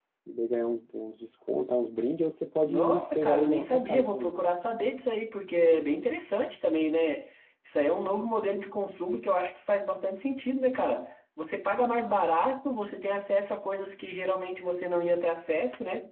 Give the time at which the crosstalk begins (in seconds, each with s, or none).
2.6 s